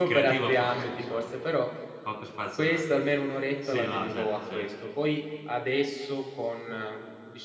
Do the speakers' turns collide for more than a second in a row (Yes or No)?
Yes